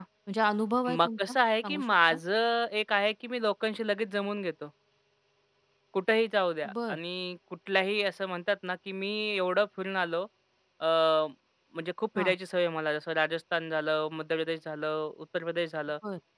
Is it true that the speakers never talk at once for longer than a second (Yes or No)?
No